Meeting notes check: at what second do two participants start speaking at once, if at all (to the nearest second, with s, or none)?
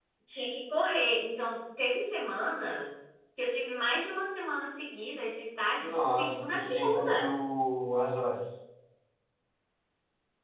6 s